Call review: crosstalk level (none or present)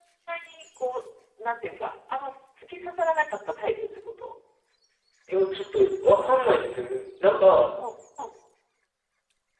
none